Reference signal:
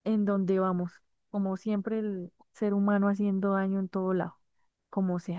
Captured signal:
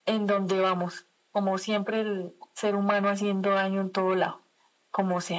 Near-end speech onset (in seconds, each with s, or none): none